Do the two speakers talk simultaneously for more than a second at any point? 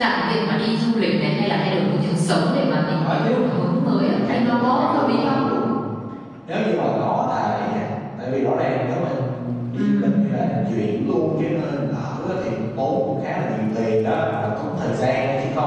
Yes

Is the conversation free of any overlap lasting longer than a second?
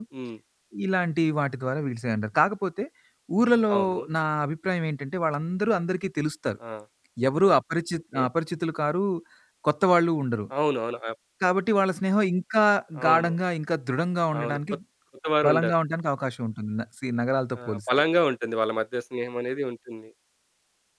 Yes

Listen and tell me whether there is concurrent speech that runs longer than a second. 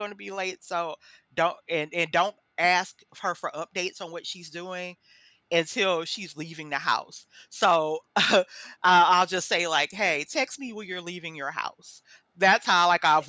No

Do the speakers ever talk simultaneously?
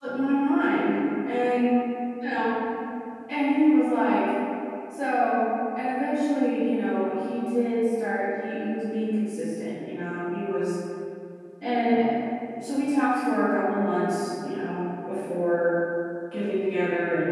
No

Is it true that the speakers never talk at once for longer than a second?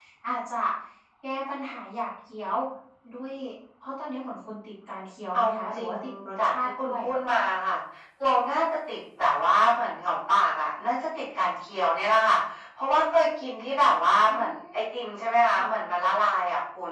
No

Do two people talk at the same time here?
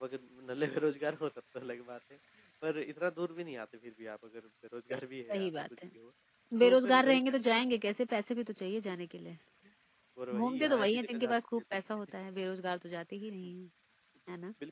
Yes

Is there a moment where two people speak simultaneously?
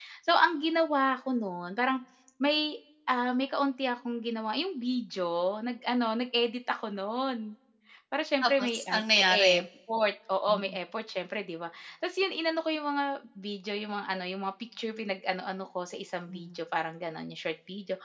Yes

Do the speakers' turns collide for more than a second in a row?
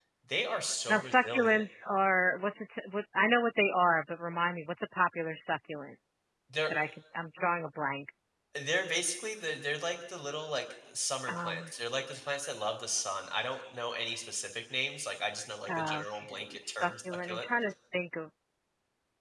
Yes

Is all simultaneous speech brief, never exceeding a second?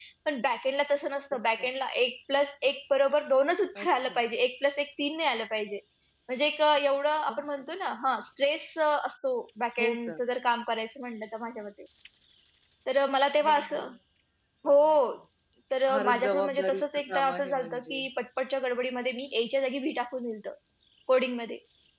No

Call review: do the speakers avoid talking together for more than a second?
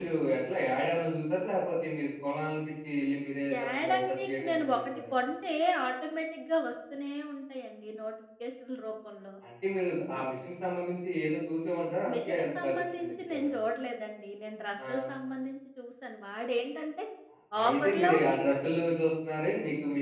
No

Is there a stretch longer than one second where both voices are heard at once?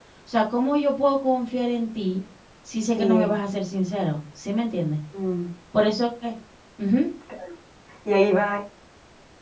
No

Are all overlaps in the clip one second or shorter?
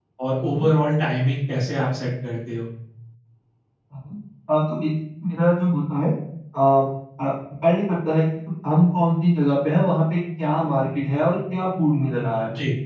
Yes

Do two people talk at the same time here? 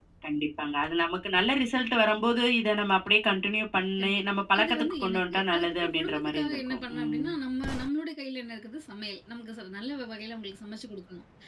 Yes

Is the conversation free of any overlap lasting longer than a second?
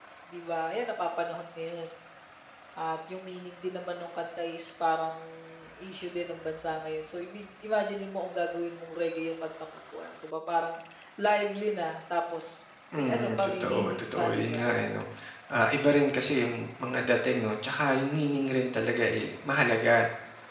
No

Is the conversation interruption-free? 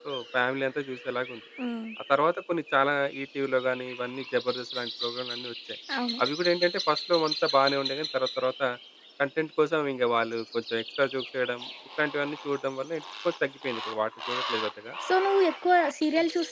Yes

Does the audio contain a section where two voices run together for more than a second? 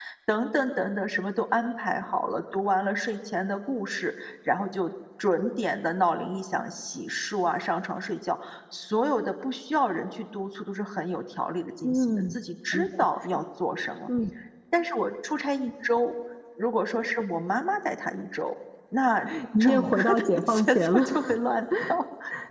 Yes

